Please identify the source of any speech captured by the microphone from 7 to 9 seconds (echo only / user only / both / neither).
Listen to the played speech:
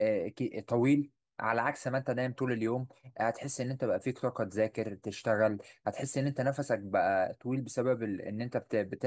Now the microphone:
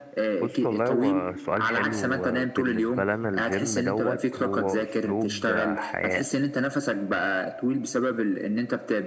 echo only